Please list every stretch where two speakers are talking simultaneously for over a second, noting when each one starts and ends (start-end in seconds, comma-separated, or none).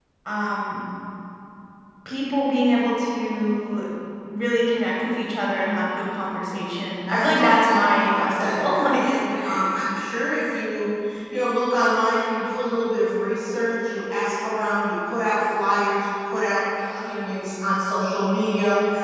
7.1-9.1